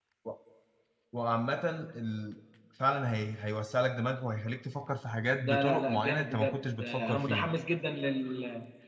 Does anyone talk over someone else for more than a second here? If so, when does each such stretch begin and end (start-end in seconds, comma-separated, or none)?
5.4-7.5